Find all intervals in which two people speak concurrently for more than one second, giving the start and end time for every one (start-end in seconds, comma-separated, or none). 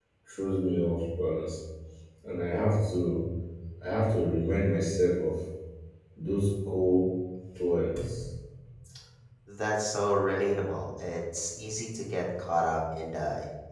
none